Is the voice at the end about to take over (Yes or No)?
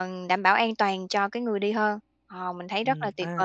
Yes